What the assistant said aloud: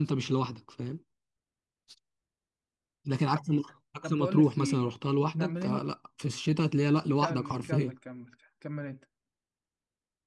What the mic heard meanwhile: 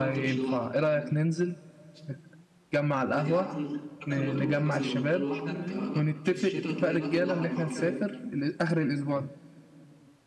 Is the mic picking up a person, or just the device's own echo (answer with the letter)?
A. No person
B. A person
B